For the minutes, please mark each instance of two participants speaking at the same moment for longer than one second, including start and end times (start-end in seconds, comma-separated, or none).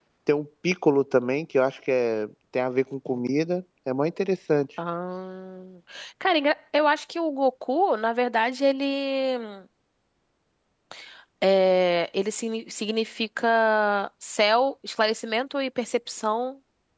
none